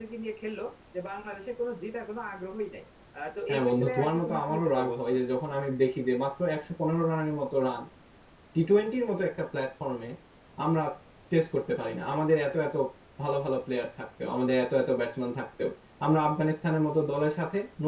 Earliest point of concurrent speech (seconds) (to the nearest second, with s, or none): 3 s